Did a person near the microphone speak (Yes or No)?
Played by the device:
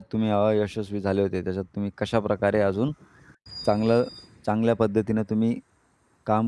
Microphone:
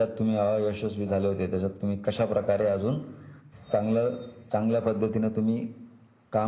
No